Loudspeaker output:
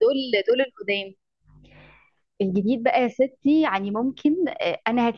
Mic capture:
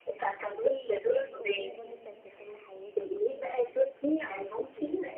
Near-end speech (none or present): present